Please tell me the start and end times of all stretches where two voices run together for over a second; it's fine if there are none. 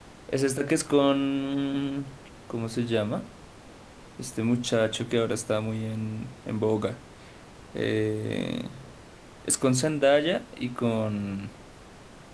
none

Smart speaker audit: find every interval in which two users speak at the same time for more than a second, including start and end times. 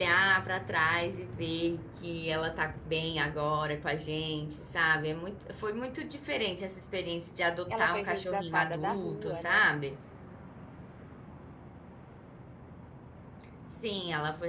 7.8-9.7

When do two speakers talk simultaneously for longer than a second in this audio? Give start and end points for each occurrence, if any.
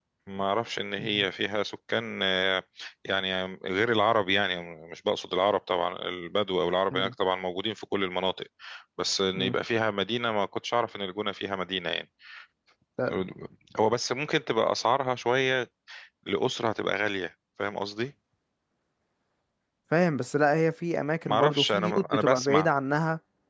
21.3-22.7

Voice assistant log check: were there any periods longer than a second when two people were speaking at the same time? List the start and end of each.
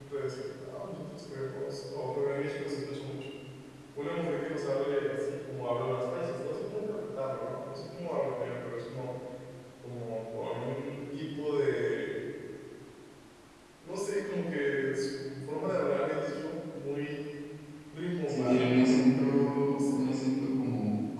18.3-20.2

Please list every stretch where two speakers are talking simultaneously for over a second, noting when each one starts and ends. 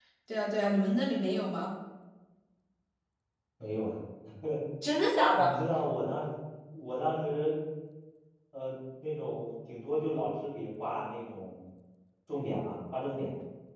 none

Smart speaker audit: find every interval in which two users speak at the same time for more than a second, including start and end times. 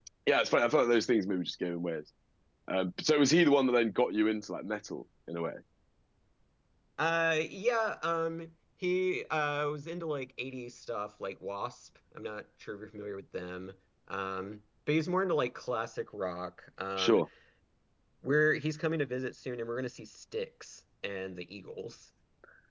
none

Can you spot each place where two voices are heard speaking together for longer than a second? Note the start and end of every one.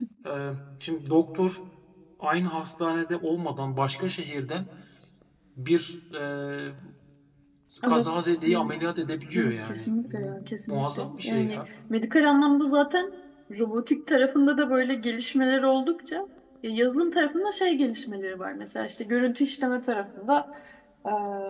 9.4-11.6

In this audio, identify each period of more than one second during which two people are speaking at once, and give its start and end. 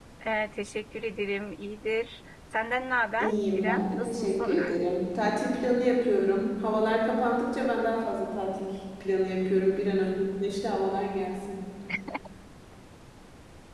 3.2-4.6

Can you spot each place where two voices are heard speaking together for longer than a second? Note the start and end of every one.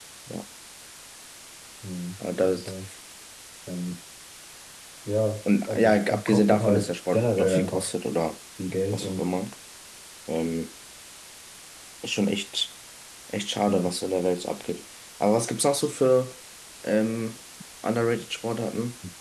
5.7-7.9

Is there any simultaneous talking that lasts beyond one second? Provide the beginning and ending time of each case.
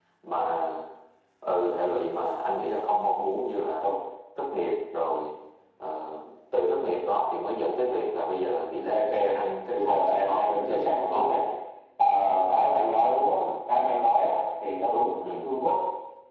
9.7-11.4

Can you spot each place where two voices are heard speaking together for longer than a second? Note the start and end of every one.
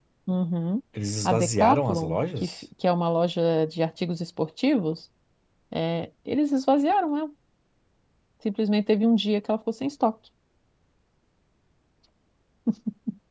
1.2-2.5

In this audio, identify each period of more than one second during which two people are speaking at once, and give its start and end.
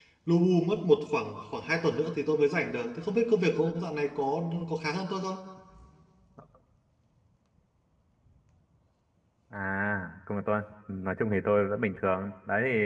none

